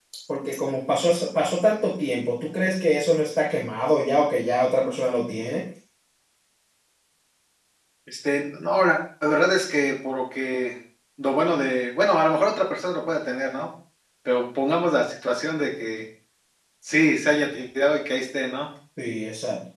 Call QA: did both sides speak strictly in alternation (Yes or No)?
Yes